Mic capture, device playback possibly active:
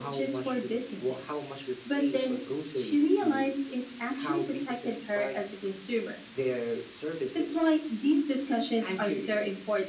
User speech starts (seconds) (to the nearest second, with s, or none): none